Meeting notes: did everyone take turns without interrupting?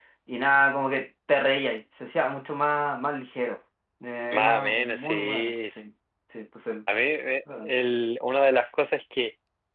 No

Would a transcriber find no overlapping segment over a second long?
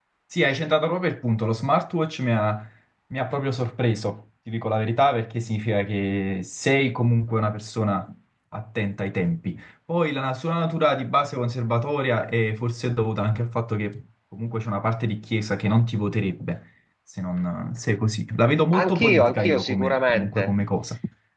No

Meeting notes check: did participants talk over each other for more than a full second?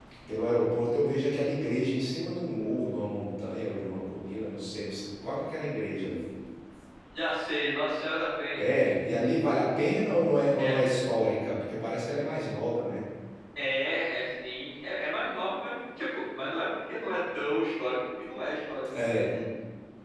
No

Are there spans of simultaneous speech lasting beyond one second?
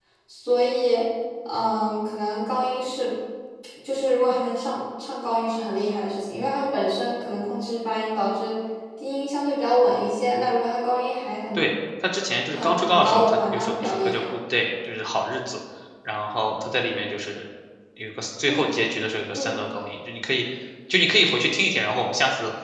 Yes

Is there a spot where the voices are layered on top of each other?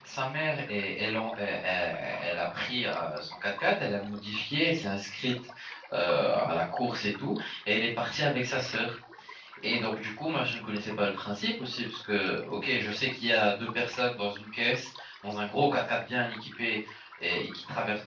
No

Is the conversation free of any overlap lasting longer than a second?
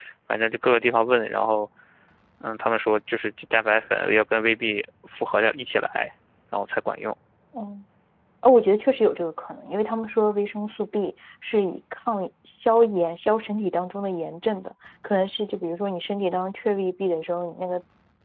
Yes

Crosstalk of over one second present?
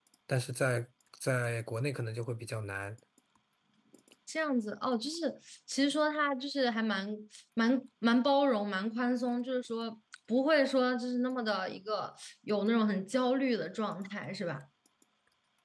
No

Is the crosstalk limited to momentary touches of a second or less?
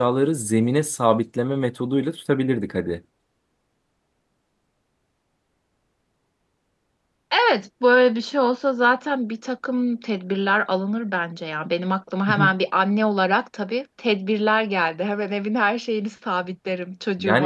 Yes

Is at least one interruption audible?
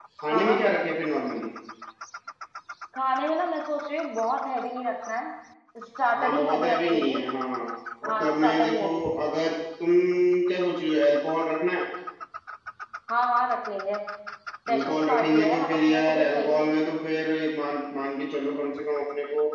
Yes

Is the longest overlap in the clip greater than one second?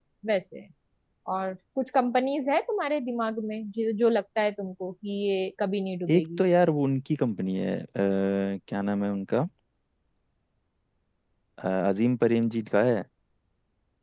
No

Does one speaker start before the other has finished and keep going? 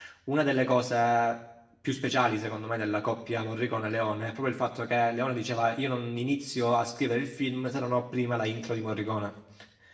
No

